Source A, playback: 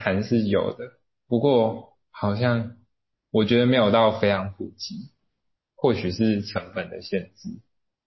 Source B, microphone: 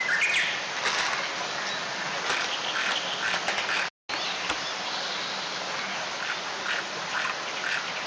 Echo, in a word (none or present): none